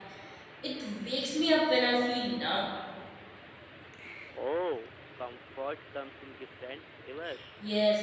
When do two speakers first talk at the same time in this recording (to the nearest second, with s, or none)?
none